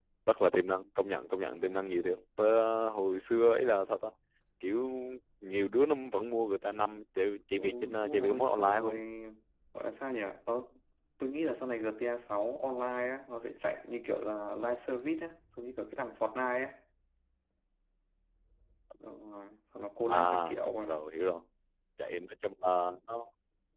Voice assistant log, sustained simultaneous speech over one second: present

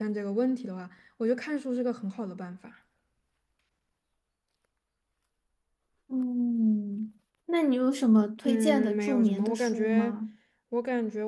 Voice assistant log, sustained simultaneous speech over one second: present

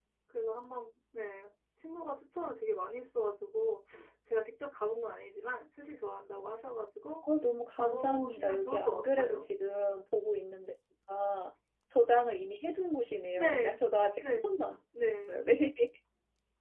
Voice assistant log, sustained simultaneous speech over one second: present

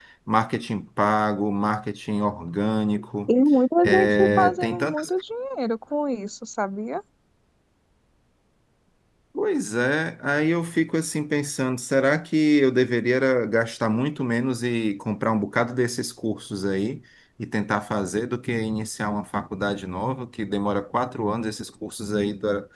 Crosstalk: present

